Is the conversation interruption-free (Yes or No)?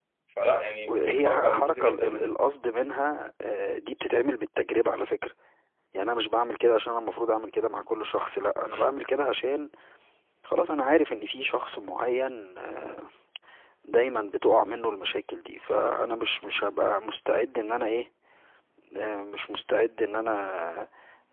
No